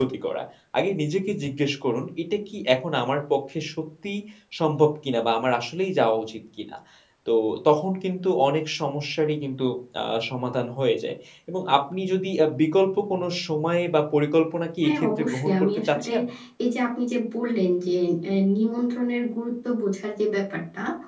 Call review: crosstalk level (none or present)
present